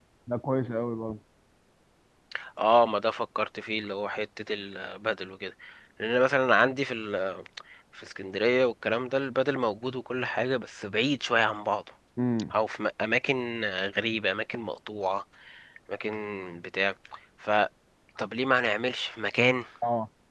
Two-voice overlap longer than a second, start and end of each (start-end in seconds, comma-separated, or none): none